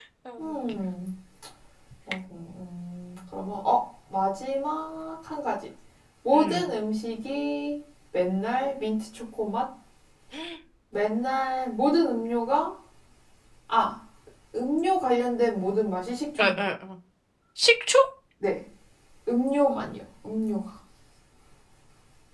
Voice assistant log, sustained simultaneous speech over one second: none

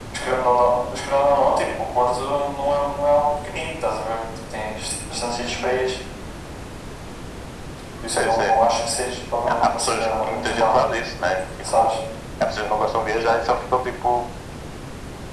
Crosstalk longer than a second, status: present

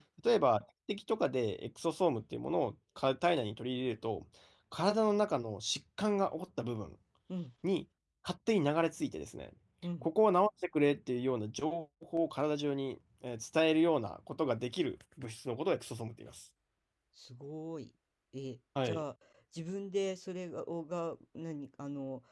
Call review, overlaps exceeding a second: none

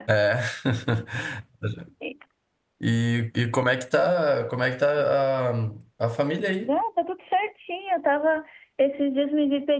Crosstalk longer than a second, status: none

